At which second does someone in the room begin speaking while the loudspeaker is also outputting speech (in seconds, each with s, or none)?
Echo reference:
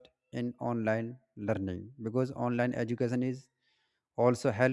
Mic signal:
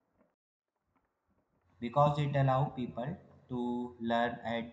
1.8 s